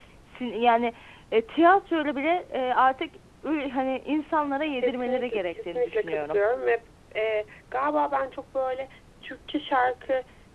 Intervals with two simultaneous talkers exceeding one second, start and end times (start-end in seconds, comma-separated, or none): 4.8-6.4